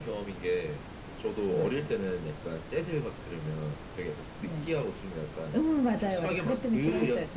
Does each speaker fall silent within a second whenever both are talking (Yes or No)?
No